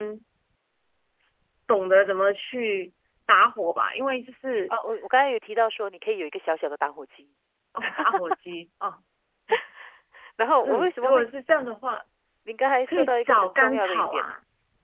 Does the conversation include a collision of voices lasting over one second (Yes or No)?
Yes